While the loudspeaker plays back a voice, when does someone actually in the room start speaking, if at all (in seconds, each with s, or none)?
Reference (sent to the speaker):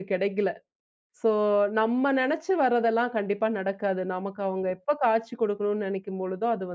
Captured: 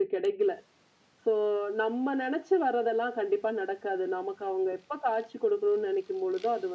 none